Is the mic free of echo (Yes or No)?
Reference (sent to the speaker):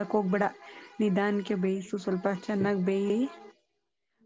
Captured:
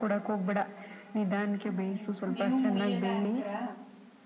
No